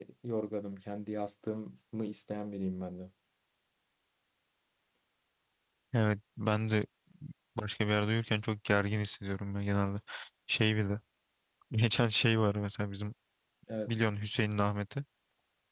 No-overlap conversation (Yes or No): Yes